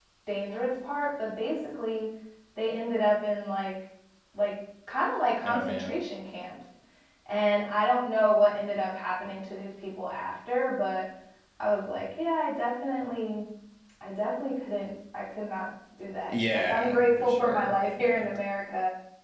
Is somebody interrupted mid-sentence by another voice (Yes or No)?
Yes